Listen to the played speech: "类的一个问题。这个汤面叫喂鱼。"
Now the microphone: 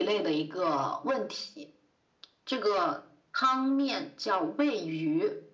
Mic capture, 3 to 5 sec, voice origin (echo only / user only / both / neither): echo only